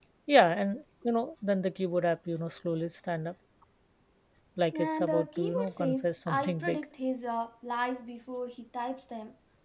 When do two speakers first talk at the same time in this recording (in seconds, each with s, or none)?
4.8 s